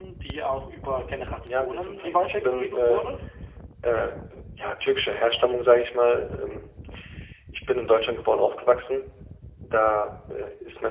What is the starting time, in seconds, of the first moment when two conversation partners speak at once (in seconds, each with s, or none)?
1.4 s